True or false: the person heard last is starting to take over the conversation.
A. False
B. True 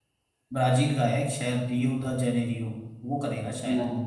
A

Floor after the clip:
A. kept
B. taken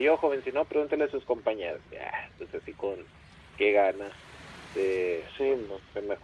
A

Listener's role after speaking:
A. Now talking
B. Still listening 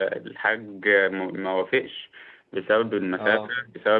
B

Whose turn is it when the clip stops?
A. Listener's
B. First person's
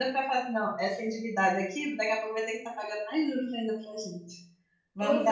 A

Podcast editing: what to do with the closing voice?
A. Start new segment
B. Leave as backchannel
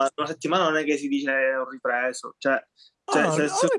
A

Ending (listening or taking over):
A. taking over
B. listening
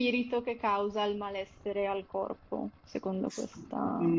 A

